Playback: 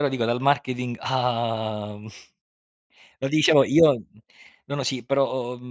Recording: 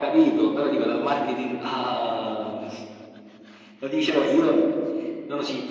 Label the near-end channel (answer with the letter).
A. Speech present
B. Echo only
B